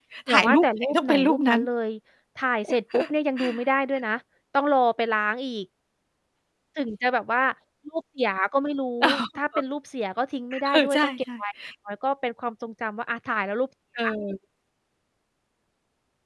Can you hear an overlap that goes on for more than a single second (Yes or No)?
Yes